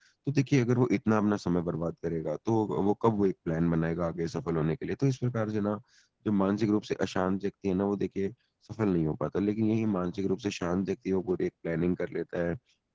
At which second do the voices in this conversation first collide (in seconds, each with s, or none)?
none